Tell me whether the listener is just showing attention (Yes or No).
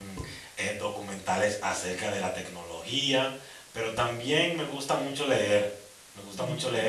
Yes